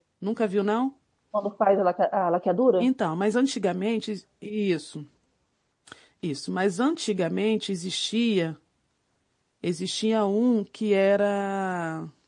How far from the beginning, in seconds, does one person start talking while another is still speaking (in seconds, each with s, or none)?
none